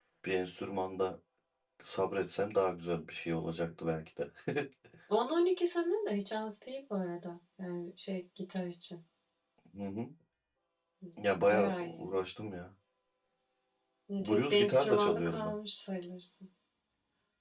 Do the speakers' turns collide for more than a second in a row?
Yes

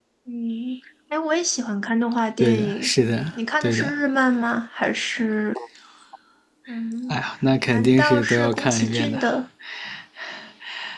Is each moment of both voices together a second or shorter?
No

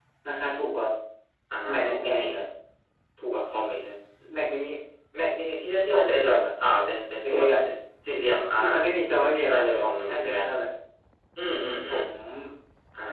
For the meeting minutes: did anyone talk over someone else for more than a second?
Yes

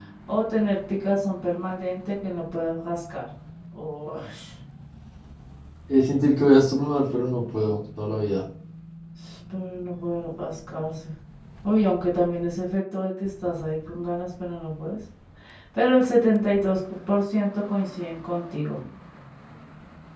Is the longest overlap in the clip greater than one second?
No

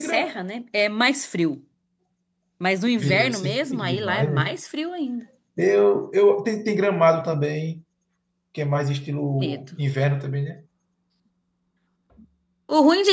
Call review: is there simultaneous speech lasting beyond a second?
Yes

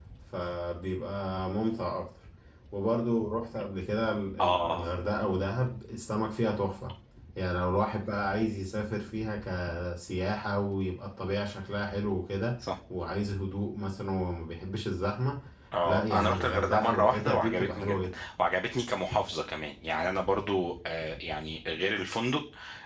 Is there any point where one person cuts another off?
Yes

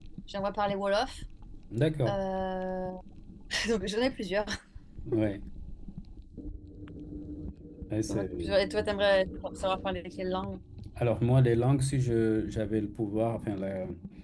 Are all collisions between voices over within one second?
Yes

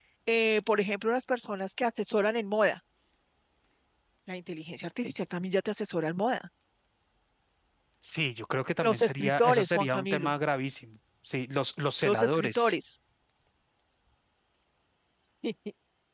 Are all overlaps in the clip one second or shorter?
No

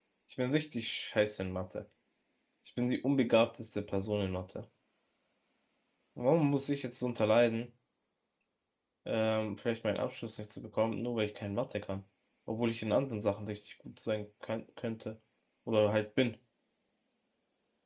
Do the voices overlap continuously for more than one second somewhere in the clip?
No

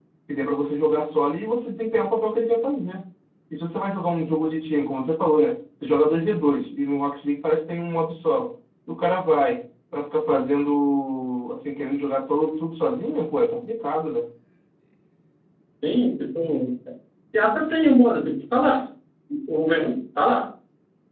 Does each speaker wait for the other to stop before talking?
Yes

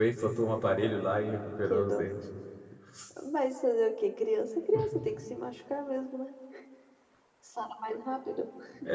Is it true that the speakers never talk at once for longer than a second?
Yes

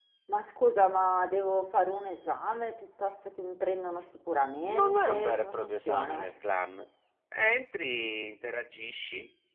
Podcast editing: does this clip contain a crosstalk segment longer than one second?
Yes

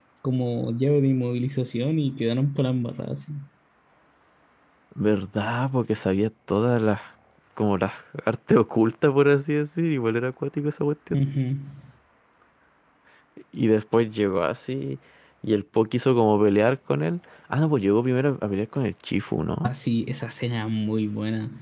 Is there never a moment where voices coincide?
Yes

